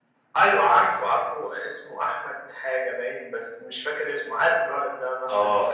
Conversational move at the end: taking over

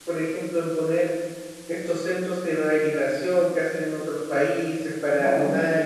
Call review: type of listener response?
listening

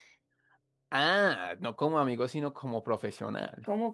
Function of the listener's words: taking over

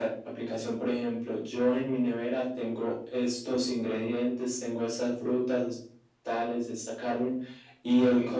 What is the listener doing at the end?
listening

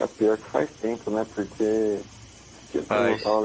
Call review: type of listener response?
listening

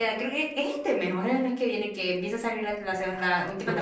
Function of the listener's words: taking over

